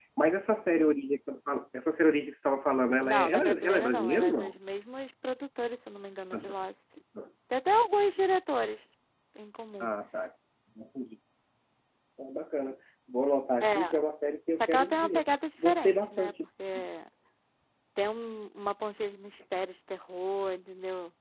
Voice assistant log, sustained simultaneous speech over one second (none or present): present